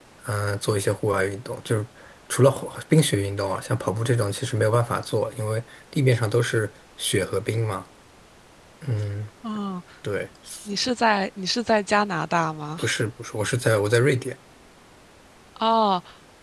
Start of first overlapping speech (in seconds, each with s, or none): none